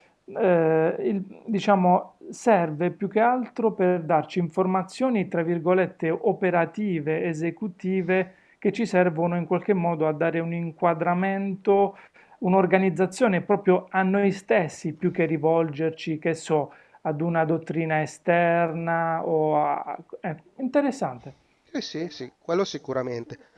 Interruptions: none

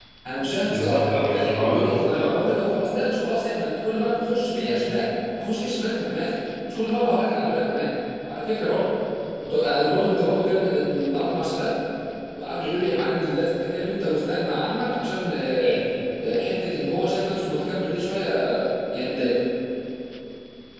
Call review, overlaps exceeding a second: present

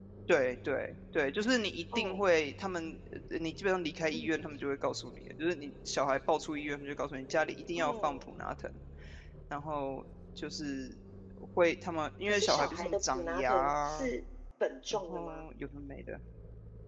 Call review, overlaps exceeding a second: present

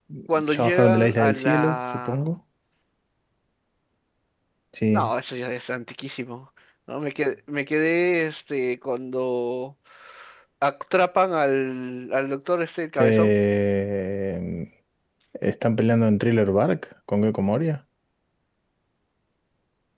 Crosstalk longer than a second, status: present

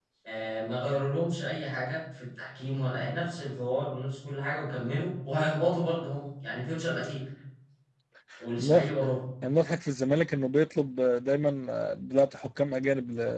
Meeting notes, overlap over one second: none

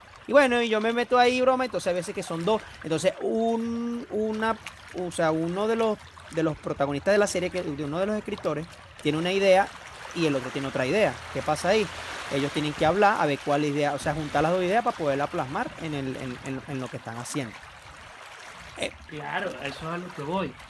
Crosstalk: none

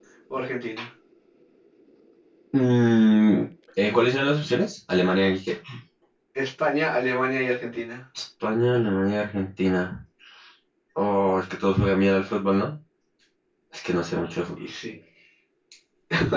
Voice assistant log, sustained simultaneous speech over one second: none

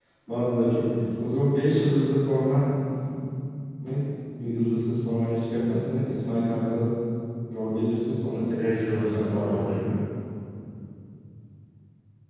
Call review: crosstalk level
present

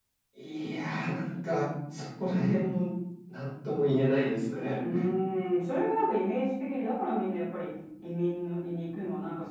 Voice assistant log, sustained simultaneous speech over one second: none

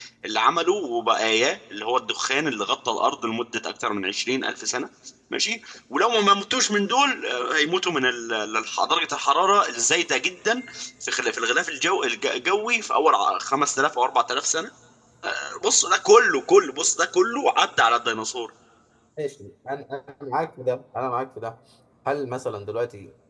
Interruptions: none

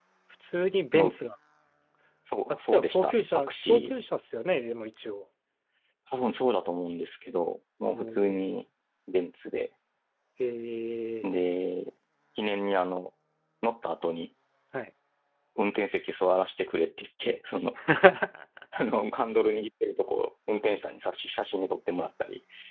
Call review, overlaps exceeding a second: present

